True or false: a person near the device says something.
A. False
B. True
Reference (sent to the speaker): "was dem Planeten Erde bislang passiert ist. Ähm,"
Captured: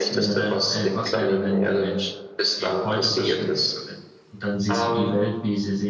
B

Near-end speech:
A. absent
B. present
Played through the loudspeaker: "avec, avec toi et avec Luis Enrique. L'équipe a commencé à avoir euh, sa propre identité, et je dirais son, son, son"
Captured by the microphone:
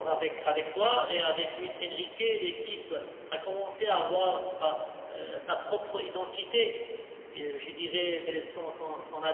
A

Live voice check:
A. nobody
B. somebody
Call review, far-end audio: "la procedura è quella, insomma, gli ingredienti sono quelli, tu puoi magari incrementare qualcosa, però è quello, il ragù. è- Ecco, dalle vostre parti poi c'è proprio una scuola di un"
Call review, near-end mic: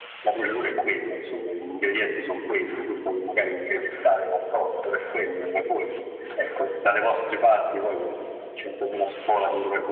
A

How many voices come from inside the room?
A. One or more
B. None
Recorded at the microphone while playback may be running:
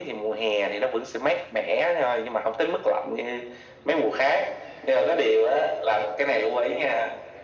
B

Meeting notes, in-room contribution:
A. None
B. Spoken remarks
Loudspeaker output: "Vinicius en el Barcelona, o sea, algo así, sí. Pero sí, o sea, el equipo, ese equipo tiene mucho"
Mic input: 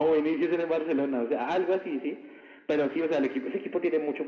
A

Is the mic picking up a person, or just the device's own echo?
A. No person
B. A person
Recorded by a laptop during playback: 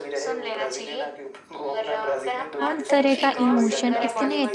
B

